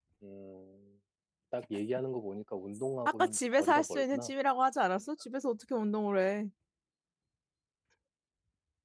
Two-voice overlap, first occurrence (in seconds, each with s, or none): 3.0 s